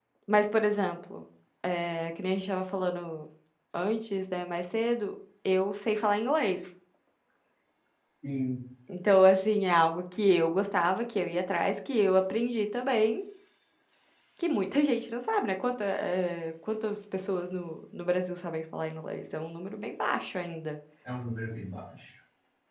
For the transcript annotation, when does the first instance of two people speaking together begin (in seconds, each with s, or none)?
none